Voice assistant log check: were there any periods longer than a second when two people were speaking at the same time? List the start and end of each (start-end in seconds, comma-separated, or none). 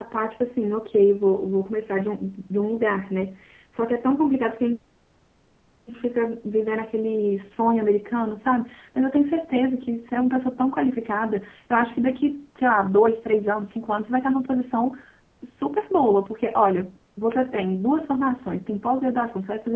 none